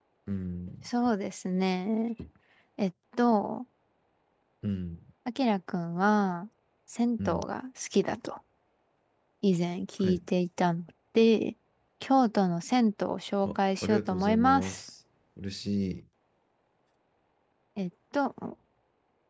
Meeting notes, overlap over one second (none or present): present